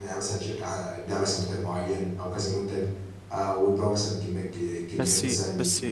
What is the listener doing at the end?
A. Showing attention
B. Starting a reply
B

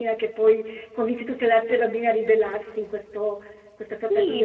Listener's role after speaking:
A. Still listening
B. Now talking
B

